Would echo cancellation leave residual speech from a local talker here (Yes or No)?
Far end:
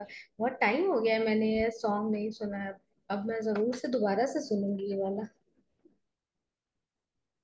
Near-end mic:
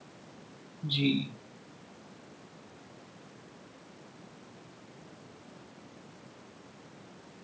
Yes